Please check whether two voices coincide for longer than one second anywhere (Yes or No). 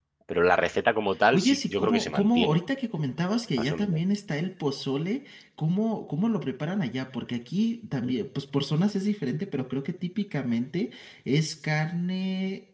Yes